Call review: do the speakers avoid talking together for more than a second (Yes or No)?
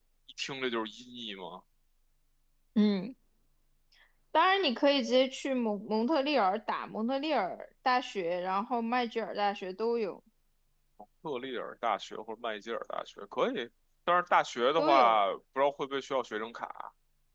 Yes